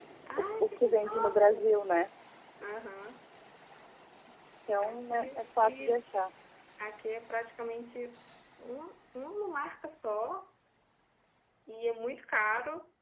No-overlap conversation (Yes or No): No